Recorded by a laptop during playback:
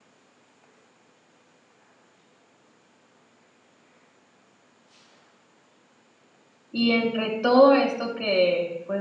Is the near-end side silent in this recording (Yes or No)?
No